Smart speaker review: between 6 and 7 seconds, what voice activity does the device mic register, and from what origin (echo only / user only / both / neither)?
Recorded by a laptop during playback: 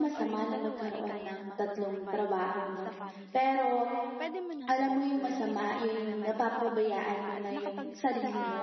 both